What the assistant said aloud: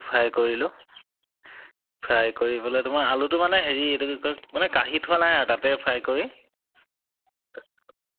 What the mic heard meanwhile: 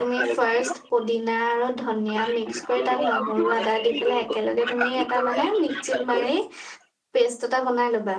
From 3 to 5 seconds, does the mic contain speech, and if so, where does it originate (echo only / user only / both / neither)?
both